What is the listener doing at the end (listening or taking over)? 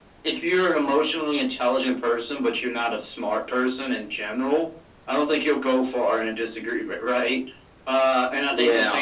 listening